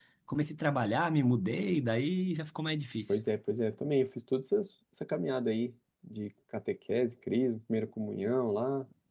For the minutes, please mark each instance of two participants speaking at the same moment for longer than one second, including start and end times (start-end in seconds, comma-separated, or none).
none